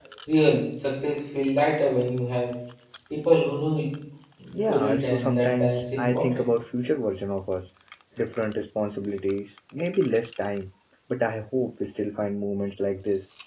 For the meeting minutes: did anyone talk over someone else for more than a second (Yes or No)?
Yes